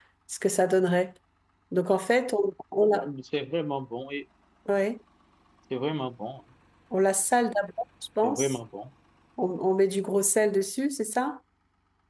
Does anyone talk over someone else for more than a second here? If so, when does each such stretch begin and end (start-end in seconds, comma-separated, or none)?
none